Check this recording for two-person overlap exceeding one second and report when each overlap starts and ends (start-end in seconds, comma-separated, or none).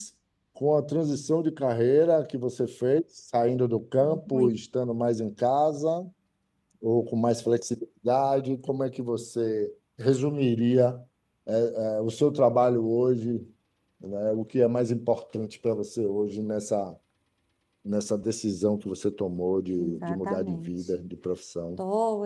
19.8-21.0